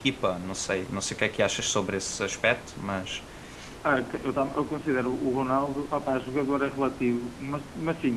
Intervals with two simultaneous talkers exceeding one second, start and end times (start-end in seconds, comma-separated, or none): none